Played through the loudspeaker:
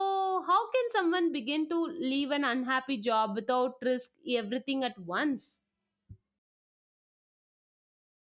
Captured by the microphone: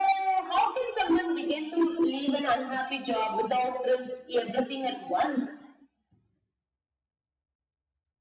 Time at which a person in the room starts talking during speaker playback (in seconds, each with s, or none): none